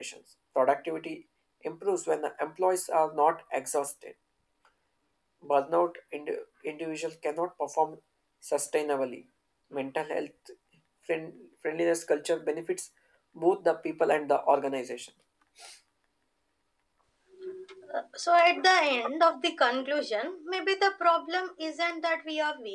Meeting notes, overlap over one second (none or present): none